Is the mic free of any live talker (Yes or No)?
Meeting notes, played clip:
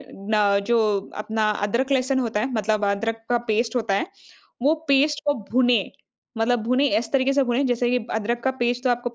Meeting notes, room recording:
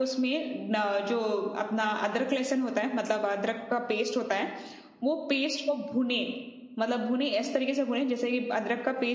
Yes